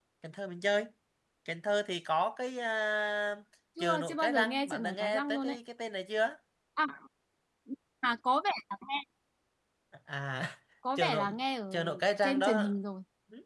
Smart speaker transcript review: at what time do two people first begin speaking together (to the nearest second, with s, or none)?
4 s